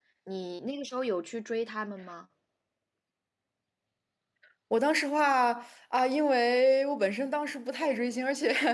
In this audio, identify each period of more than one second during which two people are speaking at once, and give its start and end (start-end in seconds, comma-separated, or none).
none